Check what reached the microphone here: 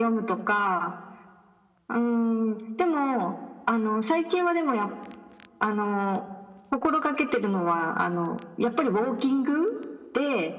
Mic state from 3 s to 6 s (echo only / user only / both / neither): echo only